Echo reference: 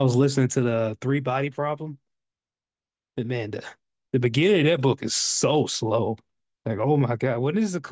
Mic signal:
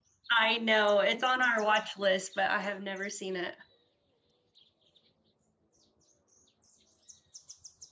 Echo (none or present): none